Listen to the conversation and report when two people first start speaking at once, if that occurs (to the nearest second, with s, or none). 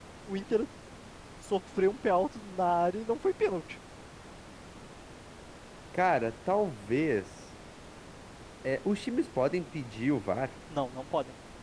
none